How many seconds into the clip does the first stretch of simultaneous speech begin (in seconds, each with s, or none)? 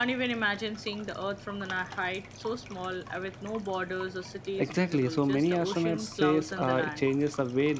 4.6 s